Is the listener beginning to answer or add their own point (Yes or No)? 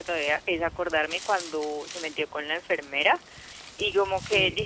No